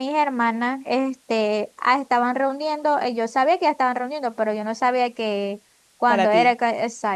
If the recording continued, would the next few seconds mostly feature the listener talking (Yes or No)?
No